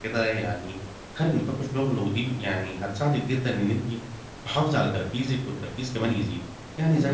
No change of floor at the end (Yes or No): Yes